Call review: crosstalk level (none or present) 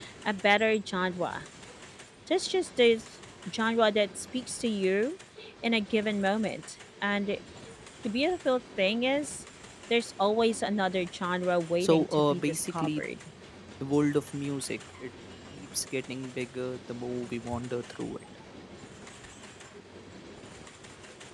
present